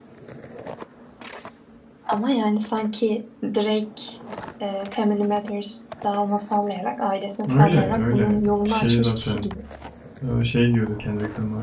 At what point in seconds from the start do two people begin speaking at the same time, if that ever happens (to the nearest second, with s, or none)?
7 s